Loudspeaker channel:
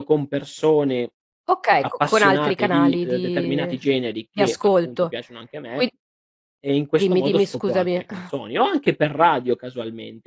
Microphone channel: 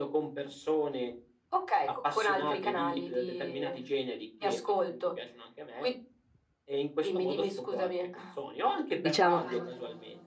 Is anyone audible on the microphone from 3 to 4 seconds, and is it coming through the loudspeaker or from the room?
echo only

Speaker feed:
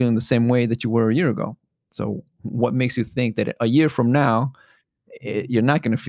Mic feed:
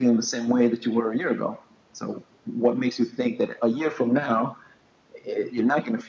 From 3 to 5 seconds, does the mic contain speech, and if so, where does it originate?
echo only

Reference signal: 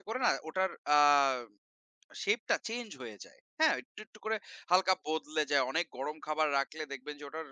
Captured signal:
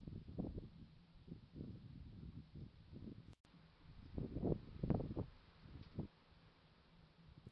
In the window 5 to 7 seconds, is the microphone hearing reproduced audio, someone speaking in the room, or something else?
neither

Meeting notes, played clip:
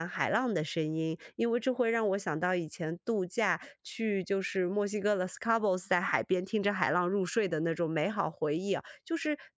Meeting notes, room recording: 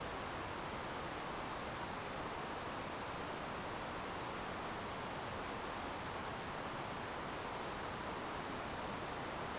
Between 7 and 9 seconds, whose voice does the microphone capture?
neither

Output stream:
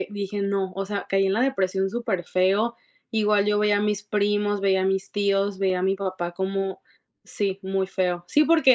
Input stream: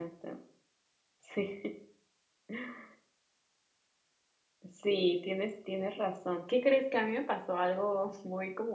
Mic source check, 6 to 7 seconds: user only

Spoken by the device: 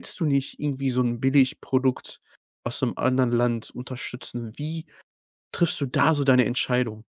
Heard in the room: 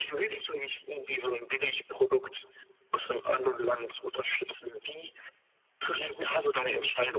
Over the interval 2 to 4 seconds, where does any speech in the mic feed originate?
echo only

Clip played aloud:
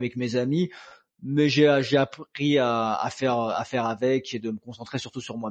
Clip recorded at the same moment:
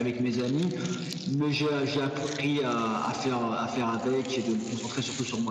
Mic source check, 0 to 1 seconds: echo only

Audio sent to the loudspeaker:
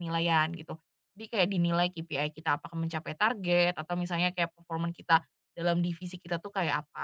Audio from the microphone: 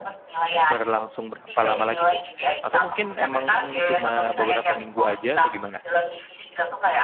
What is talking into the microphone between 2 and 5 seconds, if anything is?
both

